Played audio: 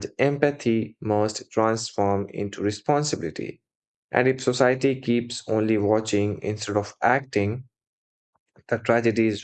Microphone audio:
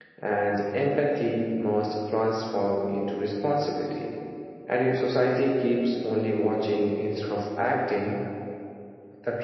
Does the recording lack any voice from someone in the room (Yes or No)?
Yes